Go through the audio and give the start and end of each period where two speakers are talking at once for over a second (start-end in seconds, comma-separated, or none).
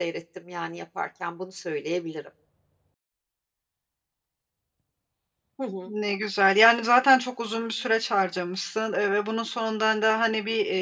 none